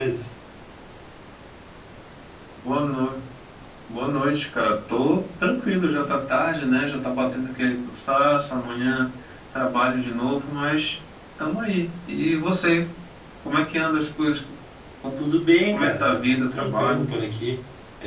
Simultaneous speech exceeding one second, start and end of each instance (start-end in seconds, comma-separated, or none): 15.7-17.1